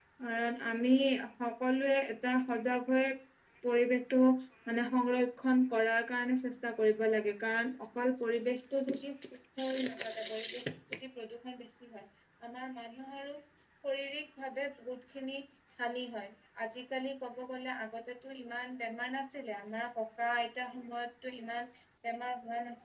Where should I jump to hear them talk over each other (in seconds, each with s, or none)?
none